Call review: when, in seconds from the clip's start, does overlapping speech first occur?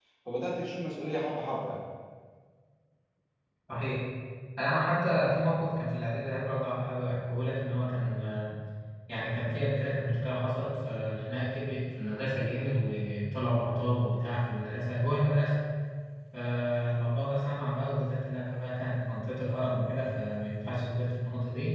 none

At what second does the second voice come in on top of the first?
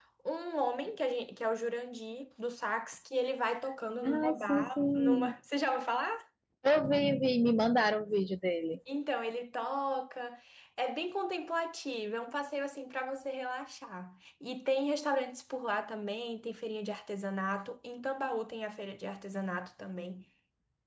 4.0 s

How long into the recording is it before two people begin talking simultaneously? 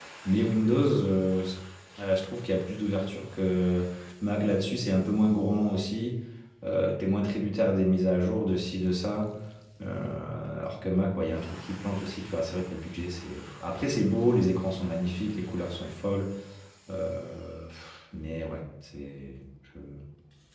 none

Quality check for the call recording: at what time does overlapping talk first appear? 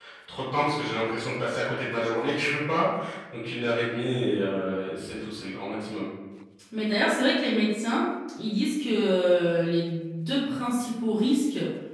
none

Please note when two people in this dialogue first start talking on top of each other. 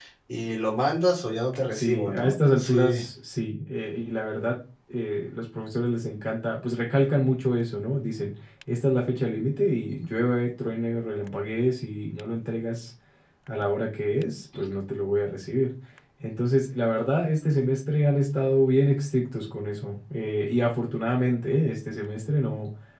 1.7 s

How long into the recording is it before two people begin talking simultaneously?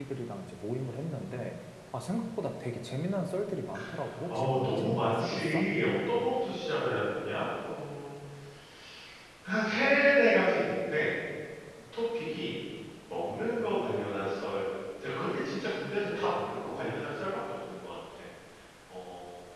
4.3 s

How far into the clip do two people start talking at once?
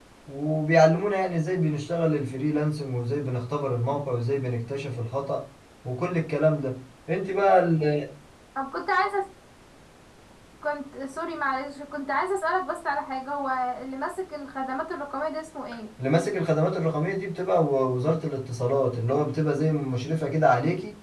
none

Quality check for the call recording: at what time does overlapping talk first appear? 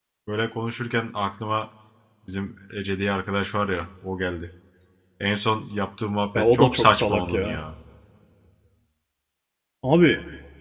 6.3 s

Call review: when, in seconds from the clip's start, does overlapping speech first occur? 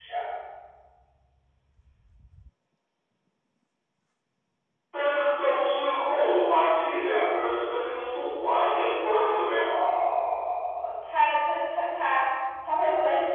none

